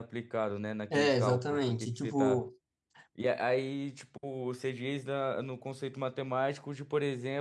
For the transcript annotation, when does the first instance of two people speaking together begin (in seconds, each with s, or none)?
0.9 s